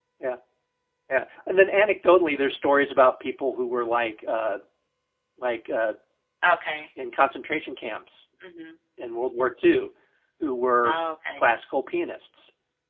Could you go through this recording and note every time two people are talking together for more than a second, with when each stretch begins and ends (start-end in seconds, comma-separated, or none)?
none